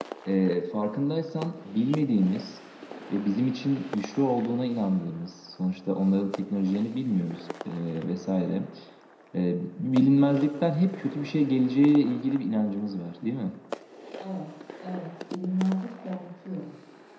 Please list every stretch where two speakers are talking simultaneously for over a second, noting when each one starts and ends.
none

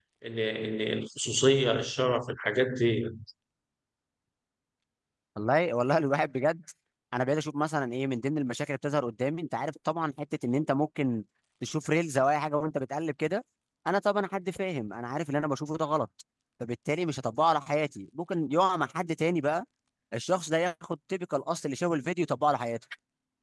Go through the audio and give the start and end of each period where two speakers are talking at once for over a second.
none

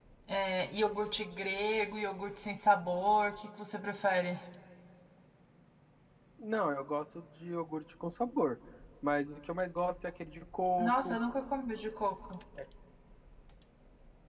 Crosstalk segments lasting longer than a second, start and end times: none

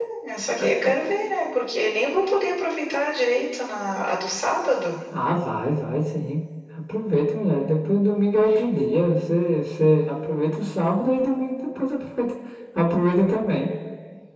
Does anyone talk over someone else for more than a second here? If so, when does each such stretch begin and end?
none

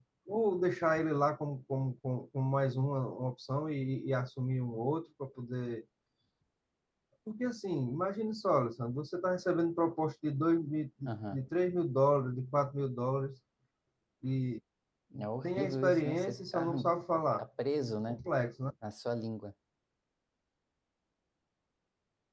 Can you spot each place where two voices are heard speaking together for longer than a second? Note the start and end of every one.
15.4-16.7

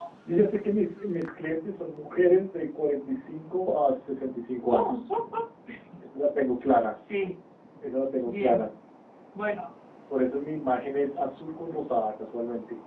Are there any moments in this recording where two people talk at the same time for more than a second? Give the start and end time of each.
none

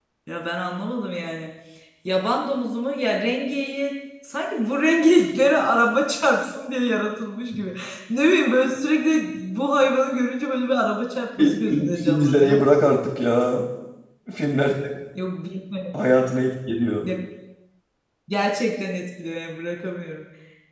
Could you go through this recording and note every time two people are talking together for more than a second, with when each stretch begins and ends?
11.4-12.7

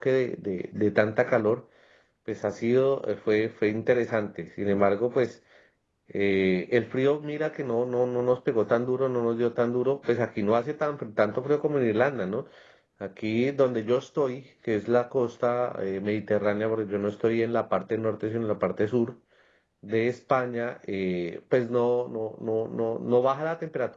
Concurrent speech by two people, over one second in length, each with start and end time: none

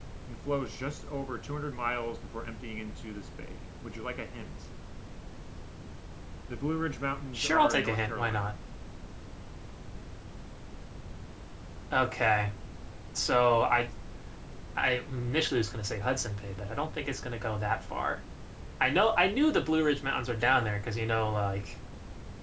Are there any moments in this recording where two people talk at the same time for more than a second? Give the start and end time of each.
7.3-8.6

